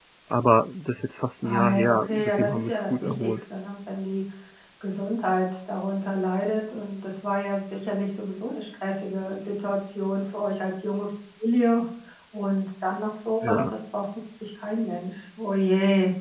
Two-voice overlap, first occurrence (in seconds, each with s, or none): 1.4 s